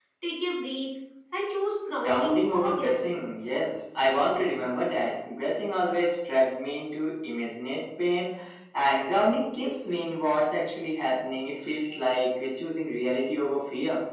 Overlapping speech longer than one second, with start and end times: 2.0-3.2

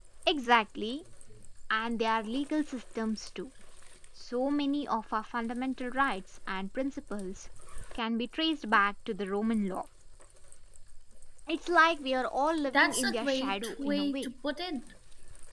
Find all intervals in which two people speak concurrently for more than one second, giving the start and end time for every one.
12.7-14.3

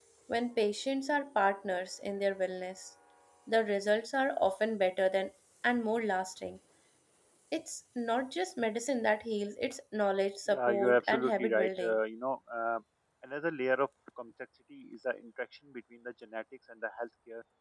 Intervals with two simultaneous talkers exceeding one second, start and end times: 10.5-12.0

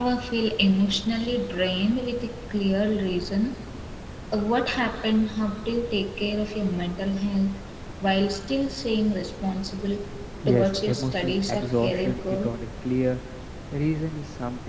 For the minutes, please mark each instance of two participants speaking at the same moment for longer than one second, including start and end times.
10.5-12.5

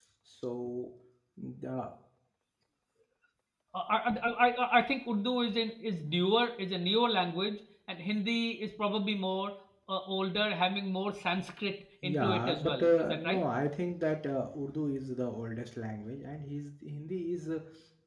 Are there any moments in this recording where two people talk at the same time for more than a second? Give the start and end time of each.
12.0-13.4

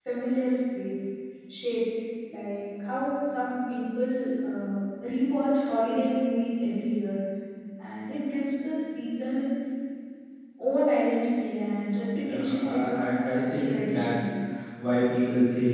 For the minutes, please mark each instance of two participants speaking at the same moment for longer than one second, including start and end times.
12.3-14.2

